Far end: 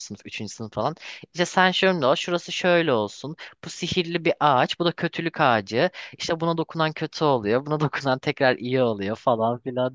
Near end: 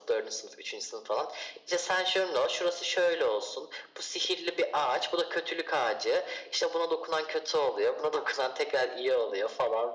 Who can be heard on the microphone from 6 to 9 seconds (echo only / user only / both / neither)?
echo only